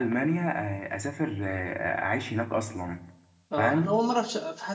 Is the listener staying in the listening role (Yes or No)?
No